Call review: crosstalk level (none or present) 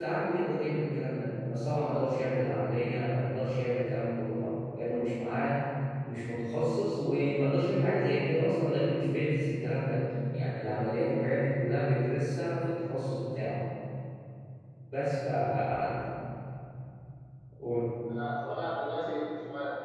none